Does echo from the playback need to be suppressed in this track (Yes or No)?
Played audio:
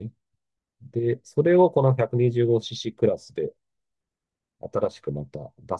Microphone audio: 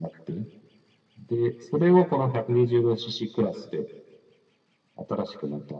Yes